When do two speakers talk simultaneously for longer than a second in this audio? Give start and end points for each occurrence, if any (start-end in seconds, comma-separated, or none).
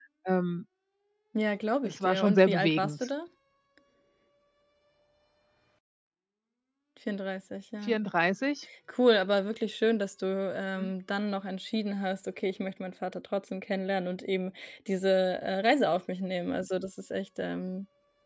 1.8-3.1